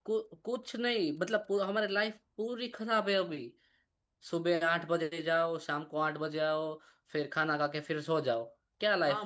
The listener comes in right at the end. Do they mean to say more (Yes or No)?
Yes